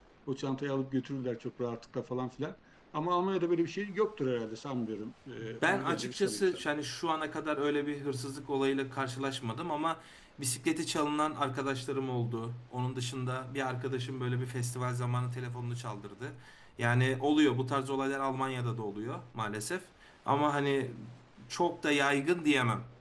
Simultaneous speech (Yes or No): Yes